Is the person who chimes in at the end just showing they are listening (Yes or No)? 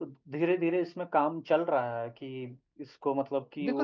No